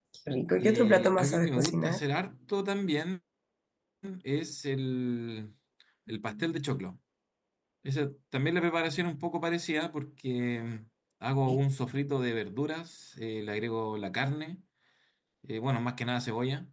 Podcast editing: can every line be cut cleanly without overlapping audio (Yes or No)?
No